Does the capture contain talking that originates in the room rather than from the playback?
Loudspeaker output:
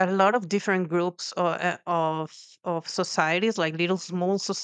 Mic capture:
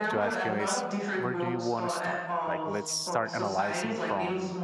Yes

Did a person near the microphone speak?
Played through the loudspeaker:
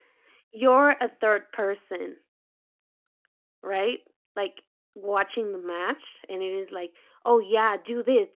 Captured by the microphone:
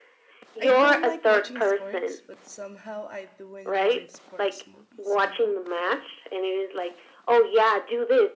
Yes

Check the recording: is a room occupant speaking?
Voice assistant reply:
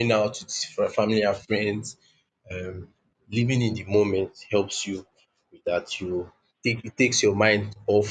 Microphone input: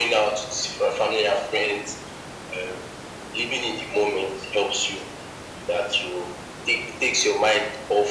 No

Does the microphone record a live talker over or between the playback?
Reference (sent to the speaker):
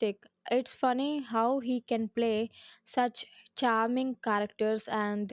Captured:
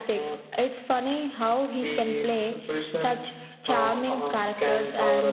Yes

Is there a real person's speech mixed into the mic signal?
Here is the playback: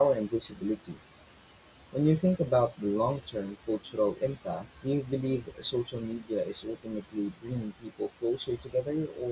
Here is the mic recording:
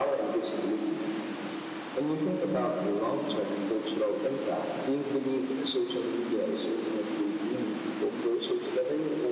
No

